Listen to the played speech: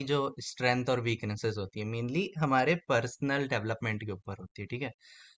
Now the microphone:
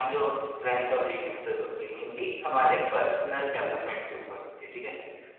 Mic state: echo only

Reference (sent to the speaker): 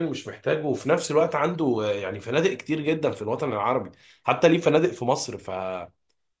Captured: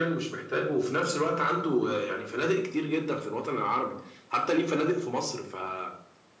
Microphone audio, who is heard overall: echo only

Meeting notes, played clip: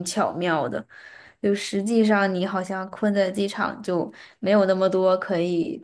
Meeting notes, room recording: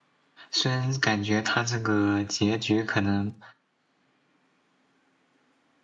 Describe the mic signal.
user only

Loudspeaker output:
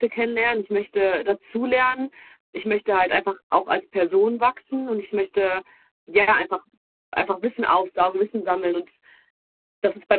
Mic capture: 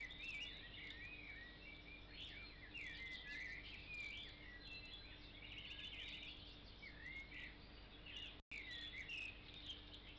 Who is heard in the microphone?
neither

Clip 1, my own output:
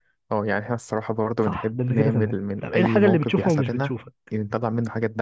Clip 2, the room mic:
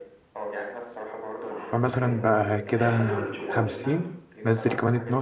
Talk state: both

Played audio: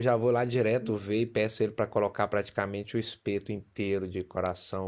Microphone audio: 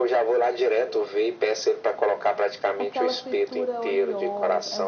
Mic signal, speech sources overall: both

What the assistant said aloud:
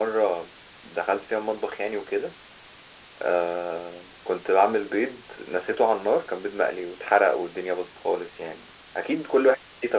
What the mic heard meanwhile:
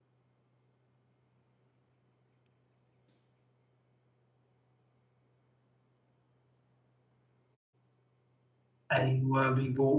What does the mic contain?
user only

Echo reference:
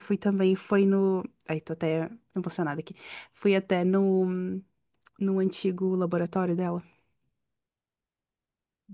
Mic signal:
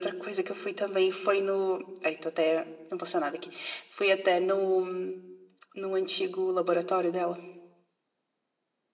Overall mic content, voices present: echo only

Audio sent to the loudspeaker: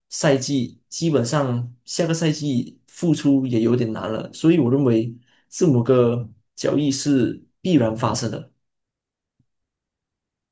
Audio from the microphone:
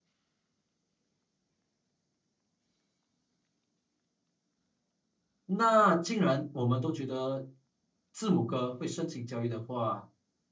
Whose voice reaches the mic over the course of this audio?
user only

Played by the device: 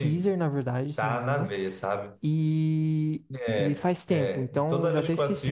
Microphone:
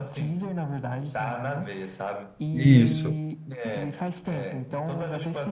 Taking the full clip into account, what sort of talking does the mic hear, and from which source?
both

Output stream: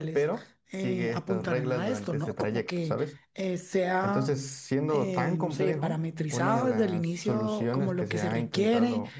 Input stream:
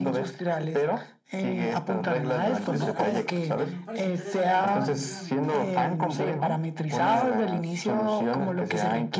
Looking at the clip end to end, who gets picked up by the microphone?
both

